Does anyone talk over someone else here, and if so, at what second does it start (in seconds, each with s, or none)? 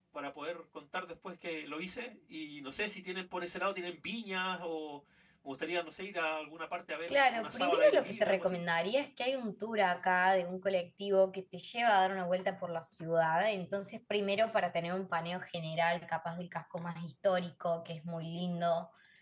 7.1 s